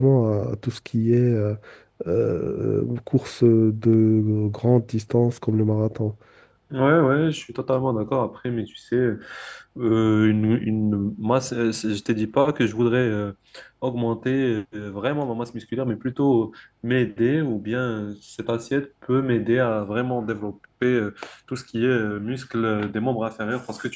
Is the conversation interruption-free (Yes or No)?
Yes